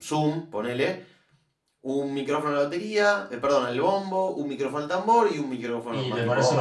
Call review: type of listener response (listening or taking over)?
taking over